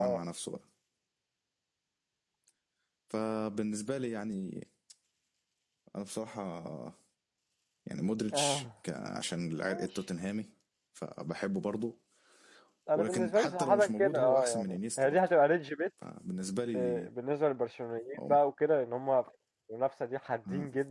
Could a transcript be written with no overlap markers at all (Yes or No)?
No